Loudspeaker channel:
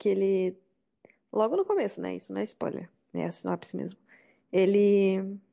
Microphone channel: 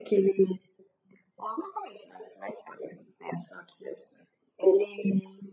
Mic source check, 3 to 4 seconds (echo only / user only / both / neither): echo only